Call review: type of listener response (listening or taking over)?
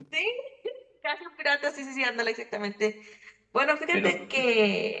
listening